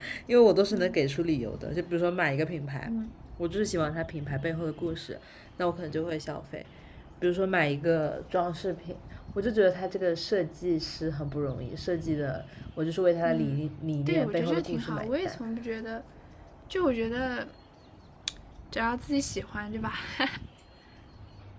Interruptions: present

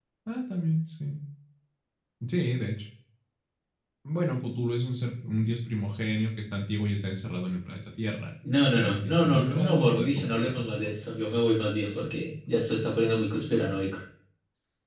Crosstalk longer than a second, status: present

